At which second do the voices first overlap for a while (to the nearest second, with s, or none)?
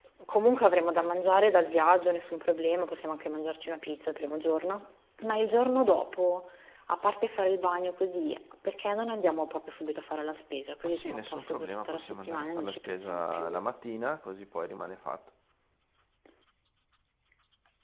11 s